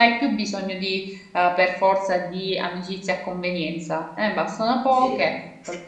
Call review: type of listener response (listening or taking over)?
listening